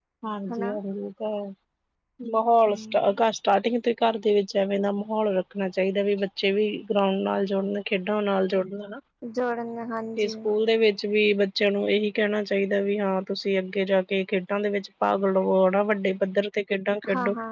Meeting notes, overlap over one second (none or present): none